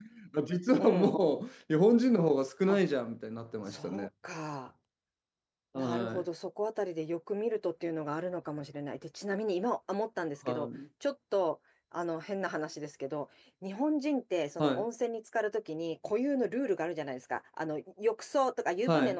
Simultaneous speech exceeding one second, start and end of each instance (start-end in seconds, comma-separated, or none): none